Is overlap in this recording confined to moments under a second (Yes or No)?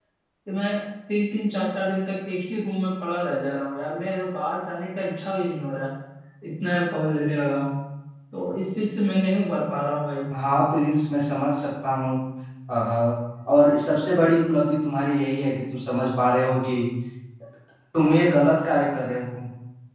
Yes